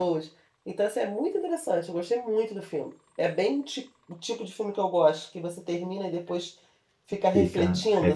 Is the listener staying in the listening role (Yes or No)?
No